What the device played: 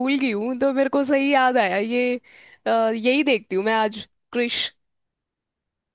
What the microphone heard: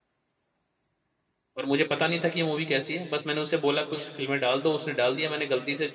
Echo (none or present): none